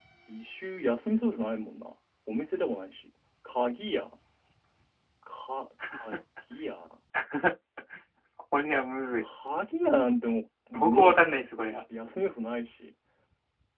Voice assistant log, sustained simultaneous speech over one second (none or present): none